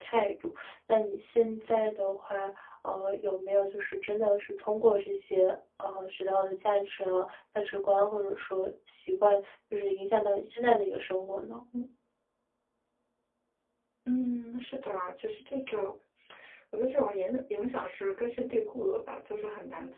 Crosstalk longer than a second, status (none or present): none